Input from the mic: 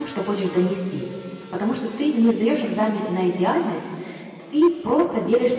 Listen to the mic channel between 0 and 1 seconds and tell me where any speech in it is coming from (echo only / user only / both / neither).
user only